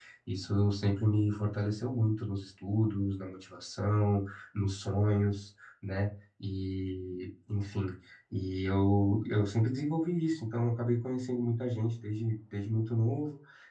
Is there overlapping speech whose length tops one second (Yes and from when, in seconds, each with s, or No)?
No